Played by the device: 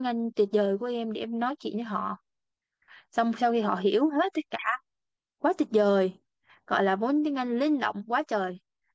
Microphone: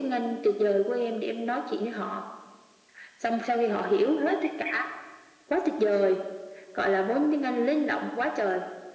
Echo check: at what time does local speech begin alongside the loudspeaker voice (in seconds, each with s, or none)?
none